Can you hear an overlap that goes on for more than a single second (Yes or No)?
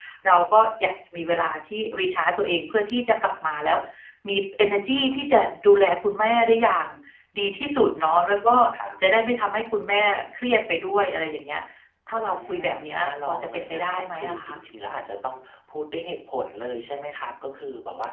Yes